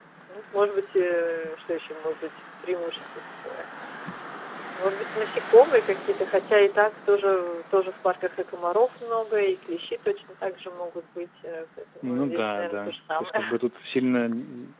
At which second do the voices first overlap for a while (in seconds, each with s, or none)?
12.0 s